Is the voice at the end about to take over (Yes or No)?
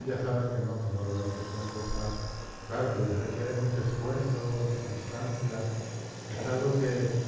No